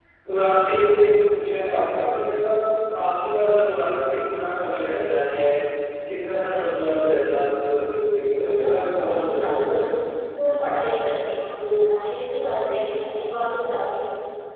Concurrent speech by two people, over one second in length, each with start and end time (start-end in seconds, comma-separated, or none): 8.4-9.8